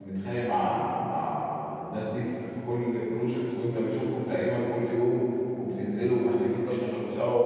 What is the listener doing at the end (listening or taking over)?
listening